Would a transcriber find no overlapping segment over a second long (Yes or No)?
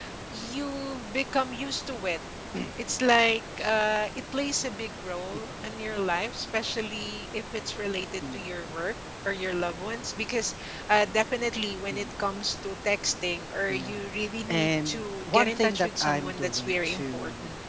No